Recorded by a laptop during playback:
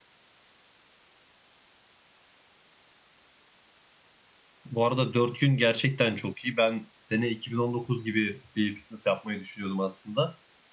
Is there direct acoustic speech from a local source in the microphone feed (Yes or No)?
Yes